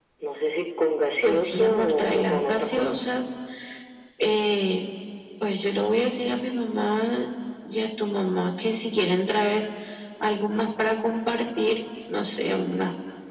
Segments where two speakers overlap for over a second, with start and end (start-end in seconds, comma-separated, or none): 1.2-3.0